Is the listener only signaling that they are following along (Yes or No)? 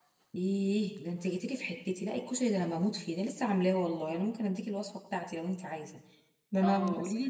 No